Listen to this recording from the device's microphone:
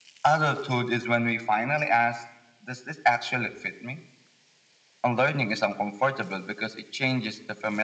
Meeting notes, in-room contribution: none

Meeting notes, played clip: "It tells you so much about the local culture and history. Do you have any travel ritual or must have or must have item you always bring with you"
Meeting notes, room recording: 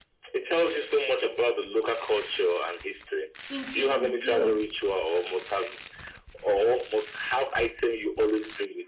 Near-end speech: present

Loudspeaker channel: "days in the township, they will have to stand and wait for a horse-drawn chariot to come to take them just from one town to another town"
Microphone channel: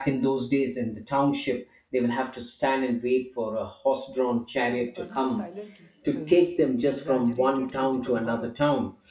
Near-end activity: present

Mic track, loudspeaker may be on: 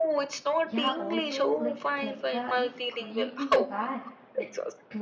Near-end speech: present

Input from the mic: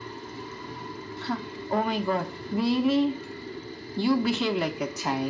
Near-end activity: none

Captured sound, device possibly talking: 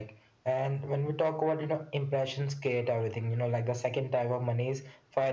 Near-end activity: none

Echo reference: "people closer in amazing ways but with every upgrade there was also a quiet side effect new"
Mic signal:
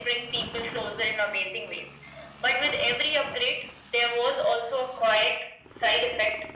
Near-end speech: none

